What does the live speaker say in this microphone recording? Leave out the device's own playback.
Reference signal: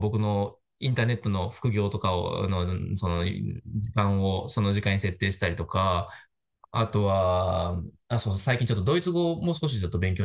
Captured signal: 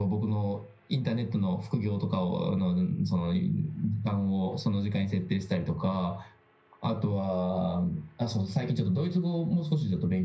none

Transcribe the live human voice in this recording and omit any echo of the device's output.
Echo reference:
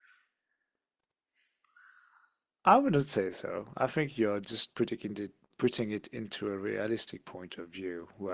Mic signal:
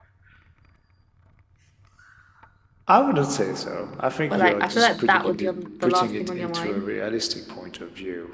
but like I feel like that would be on the last thing on your mind

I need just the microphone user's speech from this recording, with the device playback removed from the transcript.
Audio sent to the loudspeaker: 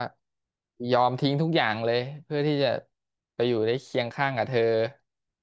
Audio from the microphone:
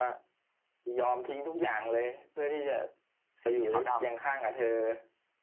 สีขาวด

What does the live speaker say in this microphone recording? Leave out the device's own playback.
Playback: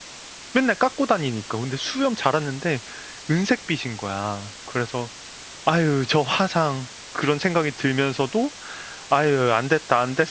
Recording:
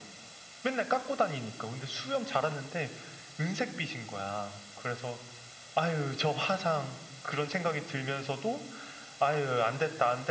none

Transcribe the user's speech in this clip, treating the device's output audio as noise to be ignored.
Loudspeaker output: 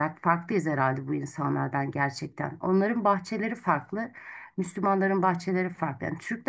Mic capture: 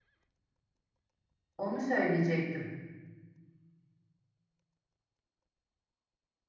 onu söyleyecektim.

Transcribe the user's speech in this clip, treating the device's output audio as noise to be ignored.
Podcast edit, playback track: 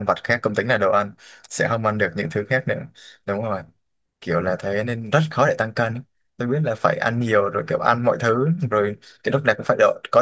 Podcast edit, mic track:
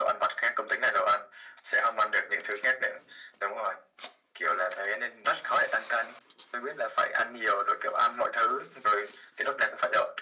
none

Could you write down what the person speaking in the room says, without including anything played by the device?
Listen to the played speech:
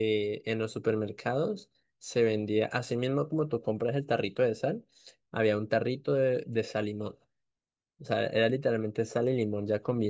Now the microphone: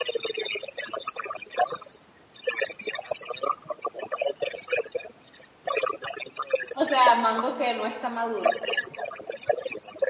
O sea, mango que no está maduro.

